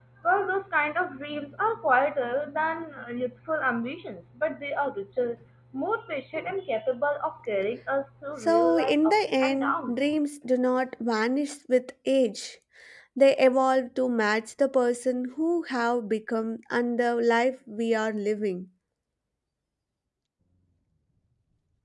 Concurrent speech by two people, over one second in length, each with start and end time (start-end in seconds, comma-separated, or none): 8.4-9.9